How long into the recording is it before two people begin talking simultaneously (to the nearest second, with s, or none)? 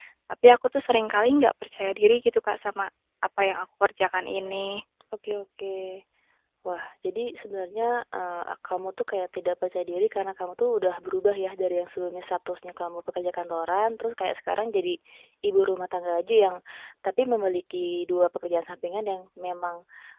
none